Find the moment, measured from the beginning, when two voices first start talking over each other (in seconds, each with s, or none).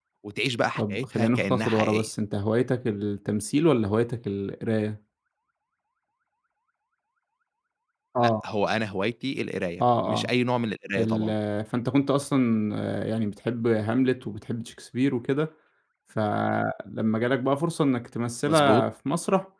0.8 s